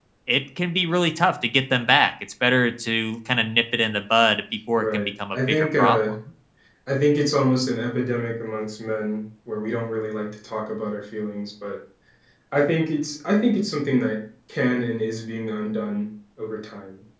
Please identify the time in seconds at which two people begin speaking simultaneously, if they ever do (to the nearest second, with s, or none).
5 s